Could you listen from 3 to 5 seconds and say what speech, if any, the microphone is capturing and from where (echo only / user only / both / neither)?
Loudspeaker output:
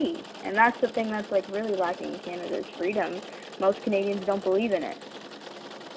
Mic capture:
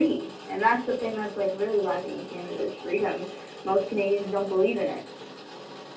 echo only